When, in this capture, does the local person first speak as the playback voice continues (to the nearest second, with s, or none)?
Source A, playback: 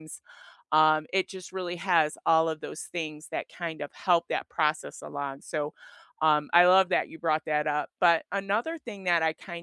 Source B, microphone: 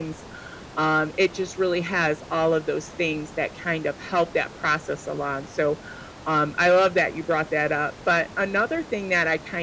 none